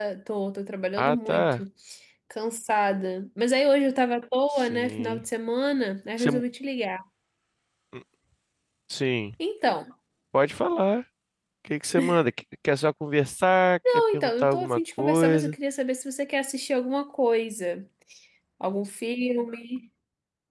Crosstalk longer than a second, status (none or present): present